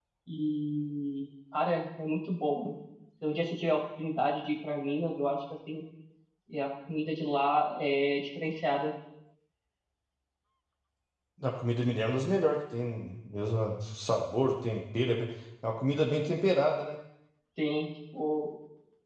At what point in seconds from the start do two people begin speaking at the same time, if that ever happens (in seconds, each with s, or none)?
none